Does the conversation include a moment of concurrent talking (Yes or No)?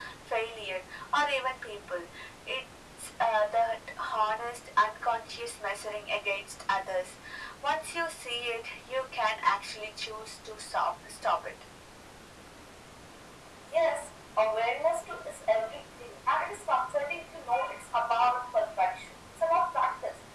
No